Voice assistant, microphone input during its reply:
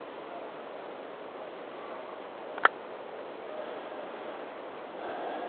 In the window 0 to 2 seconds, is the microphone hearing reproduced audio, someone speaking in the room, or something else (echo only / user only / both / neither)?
neither